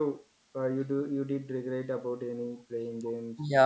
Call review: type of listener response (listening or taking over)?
taking over